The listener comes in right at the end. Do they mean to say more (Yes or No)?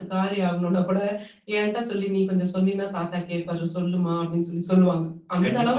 Yes